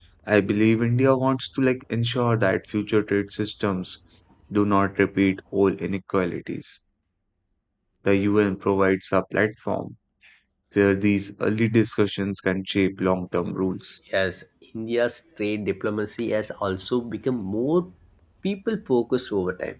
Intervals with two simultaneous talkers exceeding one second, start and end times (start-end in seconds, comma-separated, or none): none